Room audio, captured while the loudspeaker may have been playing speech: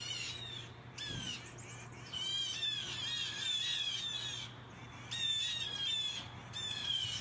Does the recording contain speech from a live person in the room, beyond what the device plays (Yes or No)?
No